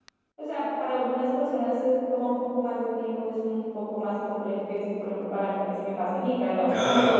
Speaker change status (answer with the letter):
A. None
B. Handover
A